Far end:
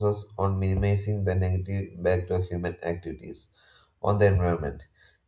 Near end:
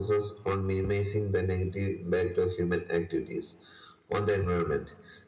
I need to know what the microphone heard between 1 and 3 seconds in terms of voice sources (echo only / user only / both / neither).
echo only